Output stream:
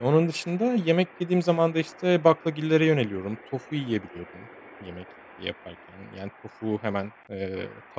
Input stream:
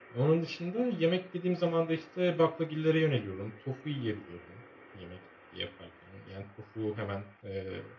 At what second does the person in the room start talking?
none

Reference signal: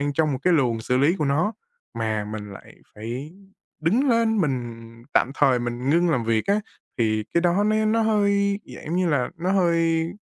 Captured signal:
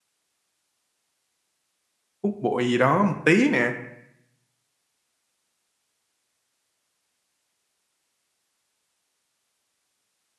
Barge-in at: 2.2 s

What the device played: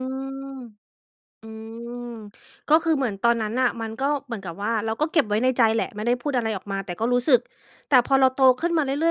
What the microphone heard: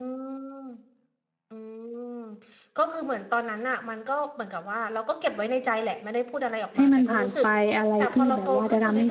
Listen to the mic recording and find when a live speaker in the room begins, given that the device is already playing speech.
6.8 s

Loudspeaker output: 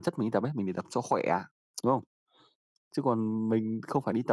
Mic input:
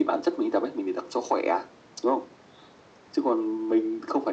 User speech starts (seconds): none

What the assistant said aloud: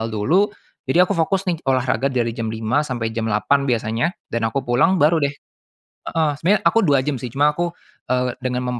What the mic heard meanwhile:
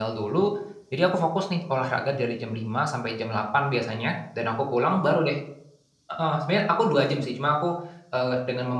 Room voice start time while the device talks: none

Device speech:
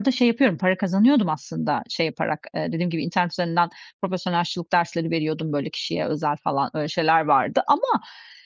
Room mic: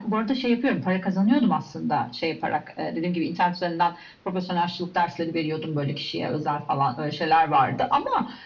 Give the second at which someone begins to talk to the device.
none

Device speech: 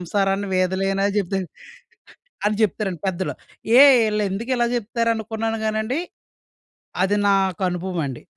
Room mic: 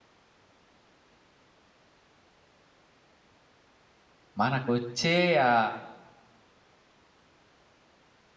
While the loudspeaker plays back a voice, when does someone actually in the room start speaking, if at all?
4.4 s

